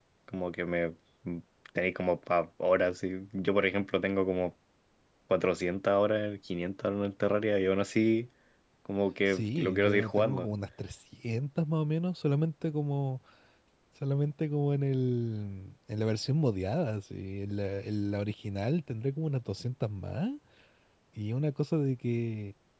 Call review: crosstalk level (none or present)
present